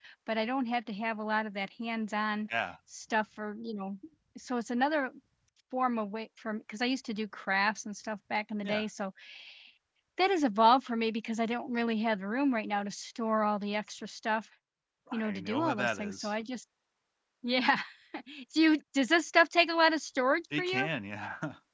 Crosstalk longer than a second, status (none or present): present